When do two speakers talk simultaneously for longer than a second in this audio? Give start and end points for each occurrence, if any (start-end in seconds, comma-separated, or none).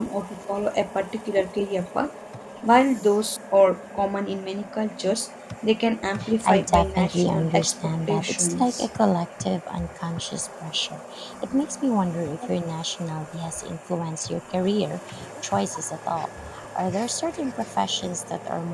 6.4-8.9